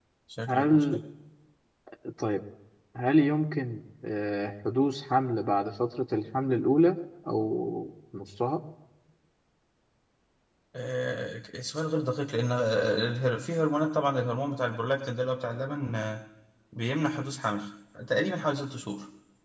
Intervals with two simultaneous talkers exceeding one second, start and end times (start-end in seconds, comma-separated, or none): none